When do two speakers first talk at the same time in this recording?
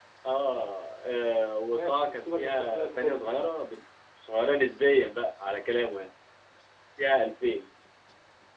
2 s

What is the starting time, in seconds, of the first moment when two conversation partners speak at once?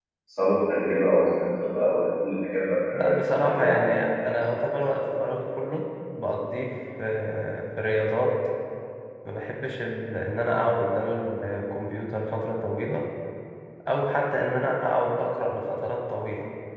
3 s

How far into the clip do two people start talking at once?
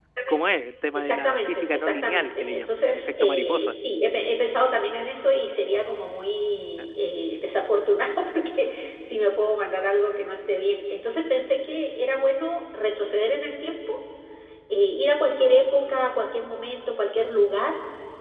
1 s

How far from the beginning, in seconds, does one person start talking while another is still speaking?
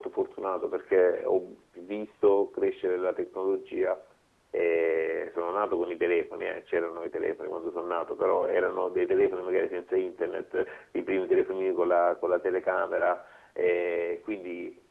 none

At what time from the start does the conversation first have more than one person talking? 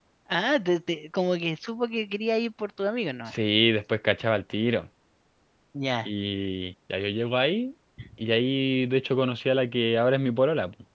none

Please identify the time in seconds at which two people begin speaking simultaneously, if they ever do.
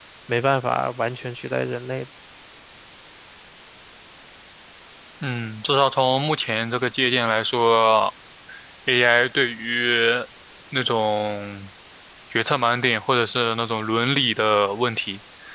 none

